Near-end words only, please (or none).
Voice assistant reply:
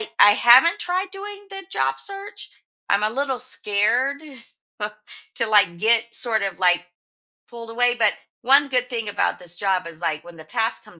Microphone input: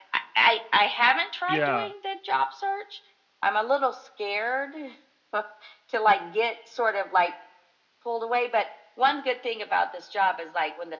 yeah.